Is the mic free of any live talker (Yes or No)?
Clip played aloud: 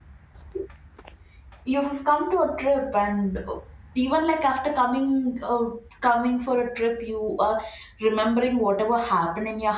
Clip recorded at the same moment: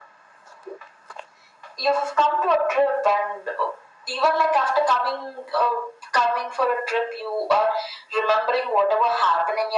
Yes